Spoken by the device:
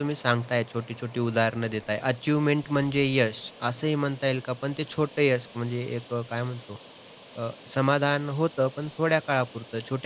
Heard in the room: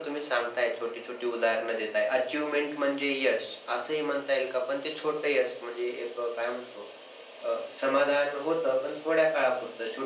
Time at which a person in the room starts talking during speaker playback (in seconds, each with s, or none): none